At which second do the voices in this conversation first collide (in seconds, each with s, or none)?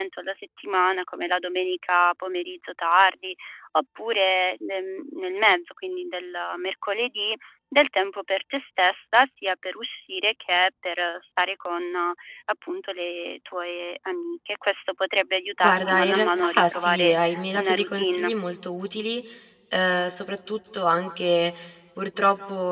15.6 s